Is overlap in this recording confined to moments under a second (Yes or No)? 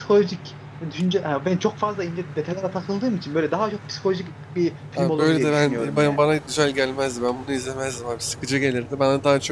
No